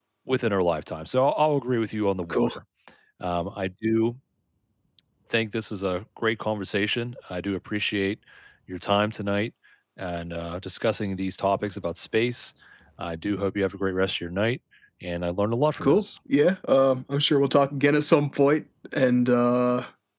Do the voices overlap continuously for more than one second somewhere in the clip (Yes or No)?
No